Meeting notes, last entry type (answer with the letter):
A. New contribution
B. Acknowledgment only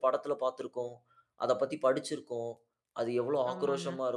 B